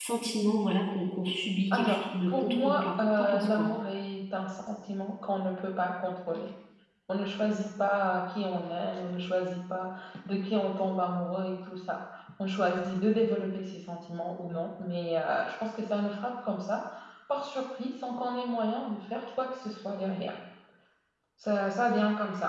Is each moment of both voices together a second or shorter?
No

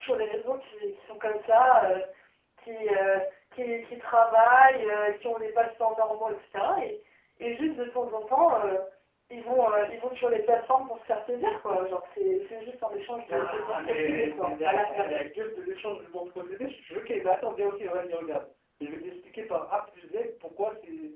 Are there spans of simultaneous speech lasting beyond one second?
Yes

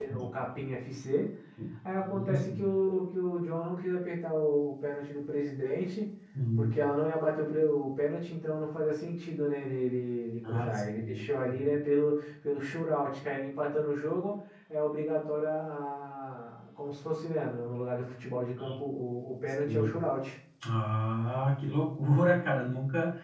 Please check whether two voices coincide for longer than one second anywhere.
Yes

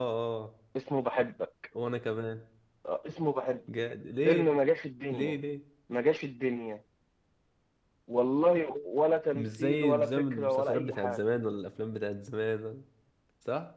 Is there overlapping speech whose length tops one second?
Yes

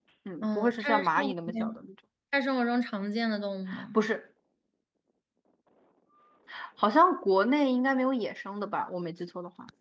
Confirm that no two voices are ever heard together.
No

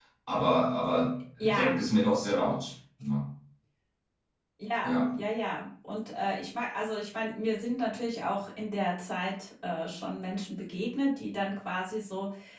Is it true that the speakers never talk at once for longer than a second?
Yes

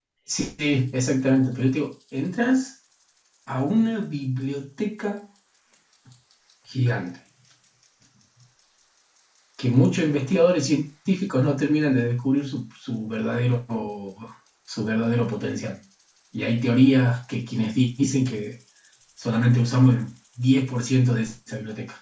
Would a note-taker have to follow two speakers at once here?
No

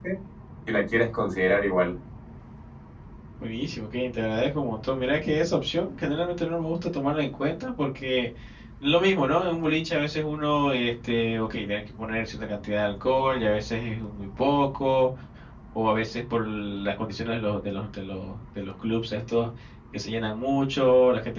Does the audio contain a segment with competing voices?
No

